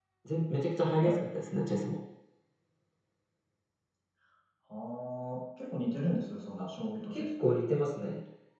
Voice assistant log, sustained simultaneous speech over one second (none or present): none